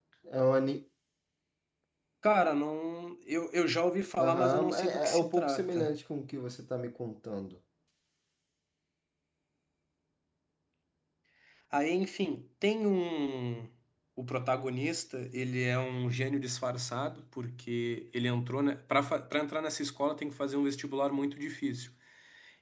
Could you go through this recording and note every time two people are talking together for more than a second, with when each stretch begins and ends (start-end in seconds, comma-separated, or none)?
4.2-5.9